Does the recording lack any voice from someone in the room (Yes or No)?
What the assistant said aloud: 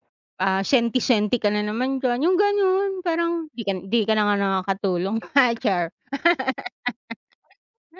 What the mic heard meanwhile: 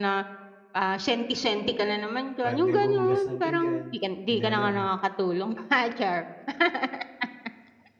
No